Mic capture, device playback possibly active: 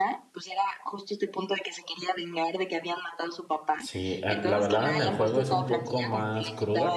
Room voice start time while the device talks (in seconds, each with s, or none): 3.8 s